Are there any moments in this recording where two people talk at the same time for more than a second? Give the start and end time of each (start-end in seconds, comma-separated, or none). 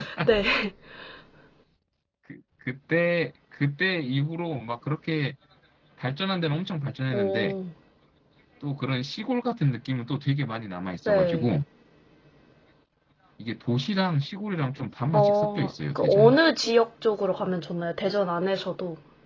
15.1-16.4